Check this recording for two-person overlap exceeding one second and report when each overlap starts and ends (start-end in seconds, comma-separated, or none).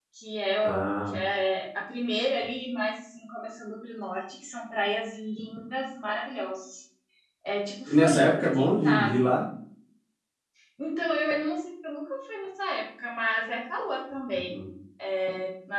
7.9-9.3